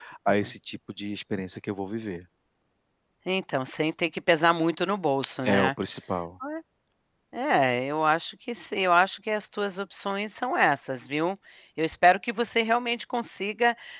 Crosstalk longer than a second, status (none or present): none